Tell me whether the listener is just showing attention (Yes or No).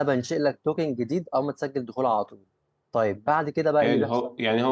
No